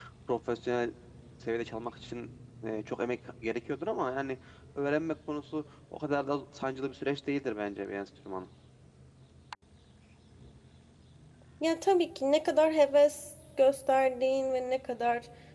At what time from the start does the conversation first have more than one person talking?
none

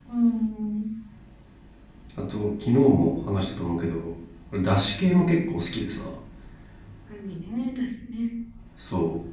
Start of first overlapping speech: none

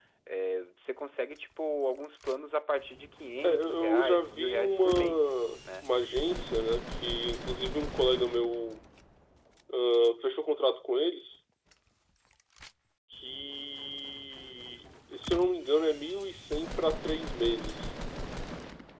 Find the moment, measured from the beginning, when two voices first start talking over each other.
3.4 s

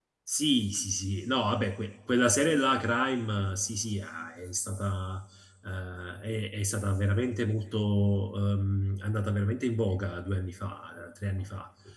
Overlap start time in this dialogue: none

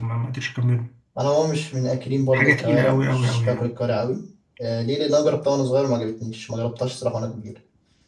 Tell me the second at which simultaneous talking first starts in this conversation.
2.3 s

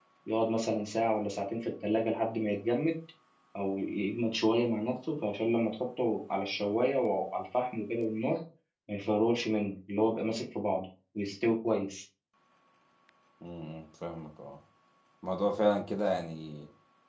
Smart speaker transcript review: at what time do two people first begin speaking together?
none

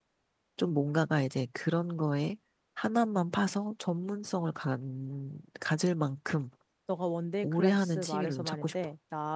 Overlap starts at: 7.4 s

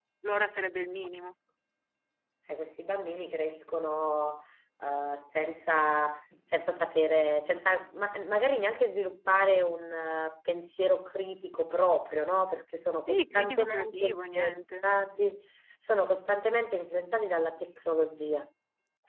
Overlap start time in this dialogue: 13.0 s

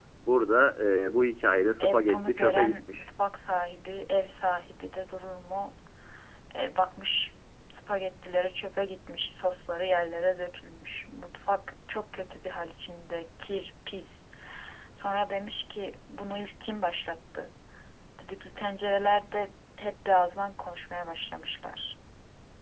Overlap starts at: 1.8 s

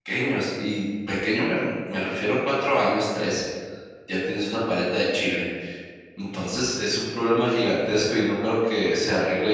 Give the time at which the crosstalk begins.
none

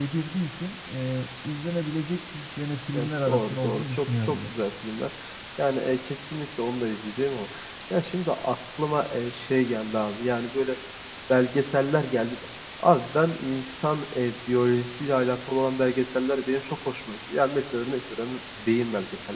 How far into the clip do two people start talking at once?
2.9 s

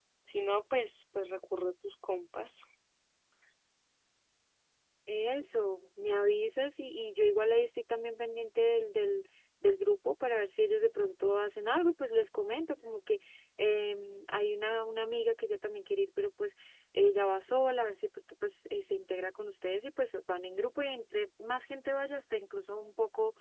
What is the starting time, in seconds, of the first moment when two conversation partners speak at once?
none

